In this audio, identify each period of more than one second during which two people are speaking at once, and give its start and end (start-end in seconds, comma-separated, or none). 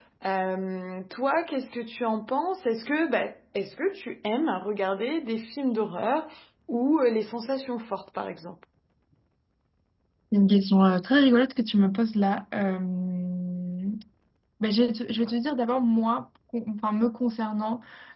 none